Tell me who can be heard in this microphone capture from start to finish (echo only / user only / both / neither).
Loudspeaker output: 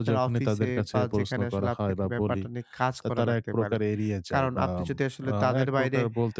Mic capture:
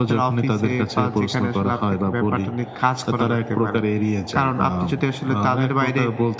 echo only